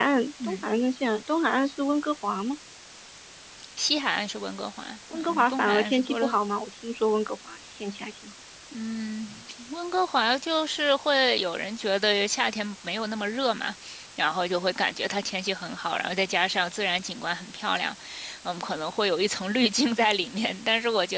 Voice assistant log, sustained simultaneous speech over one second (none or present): present